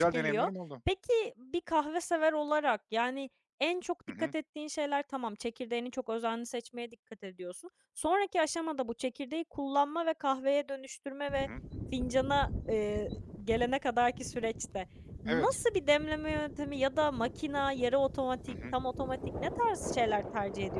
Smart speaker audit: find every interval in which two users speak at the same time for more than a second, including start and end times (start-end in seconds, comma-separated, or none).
none